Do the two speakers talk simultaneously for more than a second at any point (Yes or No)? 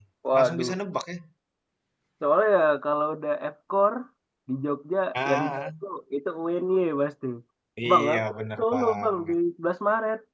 Yes